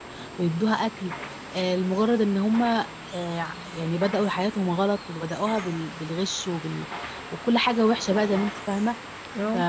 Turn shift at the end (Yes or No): No